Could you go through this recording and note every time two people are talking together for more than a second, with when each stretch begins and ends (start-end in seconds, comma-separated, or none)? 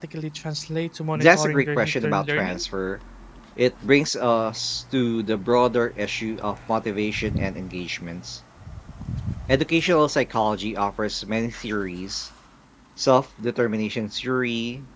1.2-2.6